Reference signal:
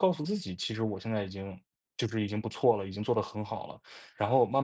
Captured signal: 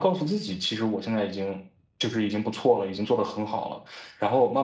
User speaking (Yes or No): No